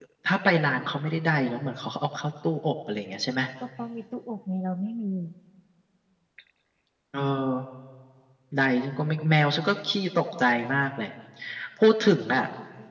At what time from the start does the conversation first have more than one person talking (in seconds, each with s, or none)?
none